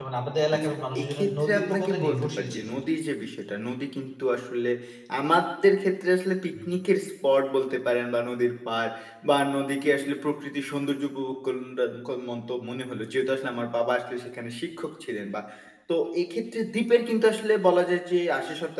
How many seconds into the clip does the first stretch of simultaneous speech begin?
1 s

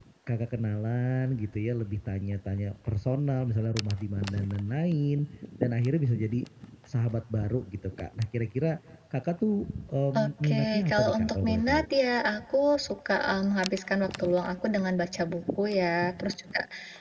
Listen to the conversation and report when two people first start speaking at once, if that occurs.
10 s

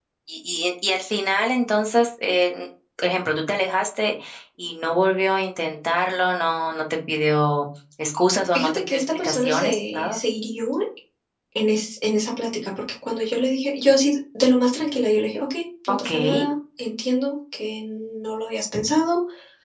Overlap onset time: 9 s

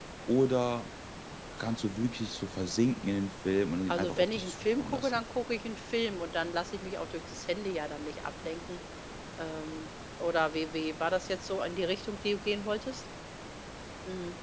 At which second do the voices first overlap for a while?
4 s

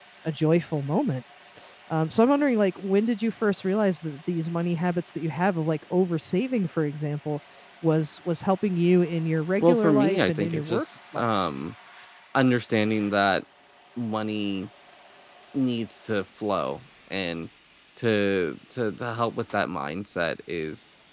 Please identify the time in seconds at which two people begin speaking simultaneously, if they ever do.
10 s

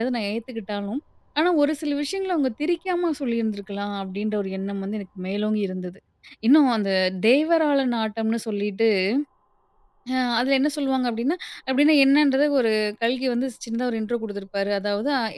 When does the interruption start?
none

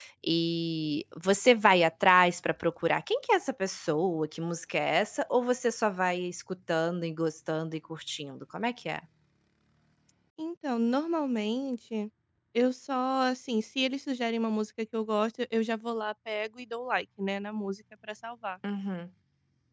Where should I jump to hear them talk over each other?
none

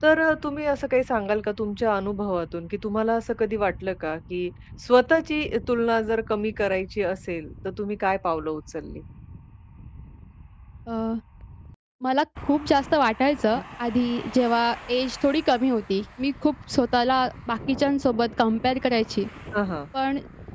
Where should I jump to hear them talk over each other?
none

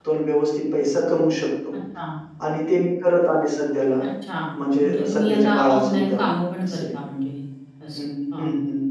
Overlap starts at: 5 s

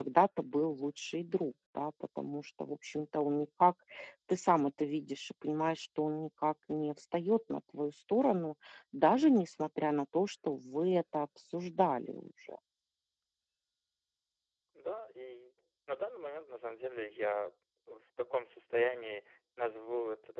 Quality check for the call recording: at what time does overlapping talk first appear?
none

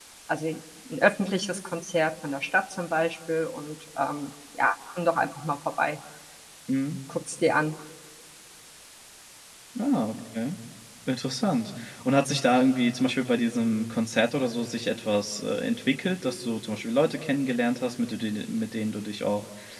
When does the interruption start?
none

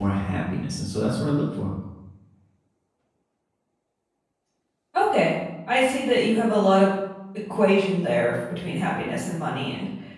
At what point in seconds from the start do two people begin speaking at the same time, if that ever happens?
none

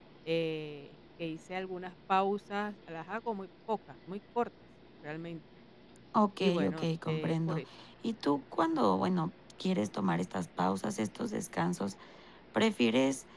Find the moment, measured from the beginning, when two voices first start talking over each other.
6 s

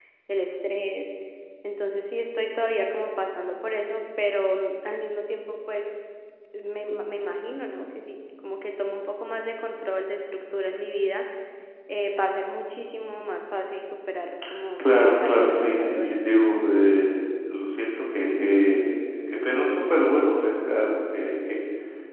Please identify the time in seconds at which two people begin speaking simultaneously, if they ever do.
15 s

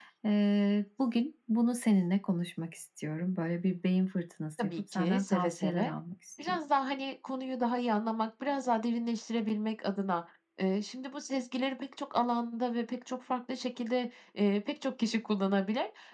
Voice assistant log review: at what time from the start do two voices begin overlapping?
5 s

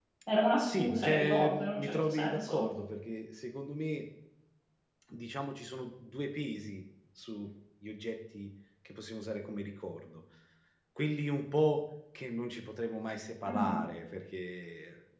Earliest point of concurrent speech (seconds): 1 s

